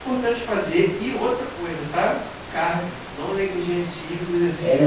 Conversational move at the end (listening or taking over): taking over